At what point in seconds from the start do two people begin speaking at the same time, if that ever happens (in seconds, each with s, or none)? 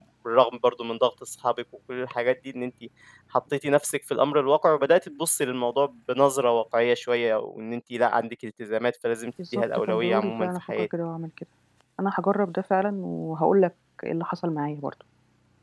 9.4 s